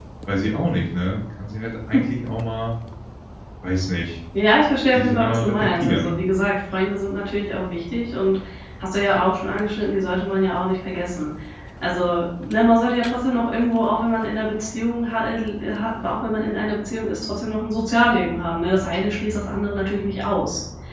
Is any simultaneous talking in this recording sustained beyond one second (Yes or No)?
Yes